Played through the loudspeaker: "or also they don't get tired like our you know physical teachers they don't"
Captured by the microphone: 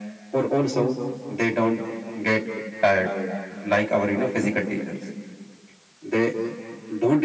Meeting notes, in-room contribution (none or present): none